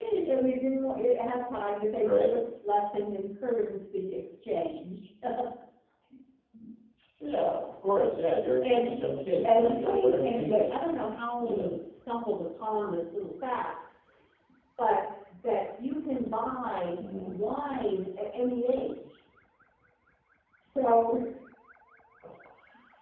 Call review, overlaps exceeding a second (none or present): present